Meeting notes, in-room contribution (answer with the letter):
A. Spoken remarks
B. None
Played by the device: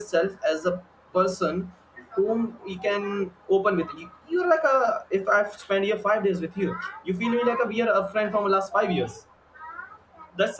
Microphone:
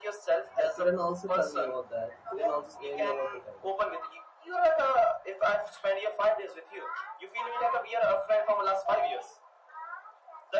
A